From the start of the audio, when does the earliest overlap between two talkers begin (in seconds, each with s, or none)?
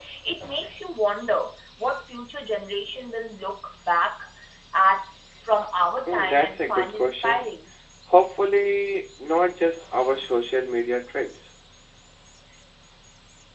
6.1 s